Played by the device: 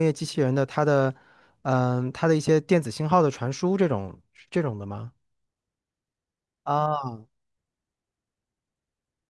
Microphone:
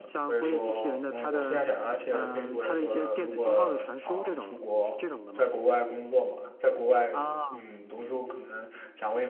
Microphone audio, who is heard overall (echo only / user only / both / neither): both